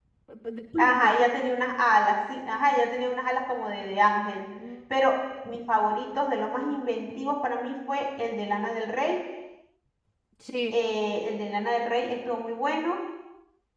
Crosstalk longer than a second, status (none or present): none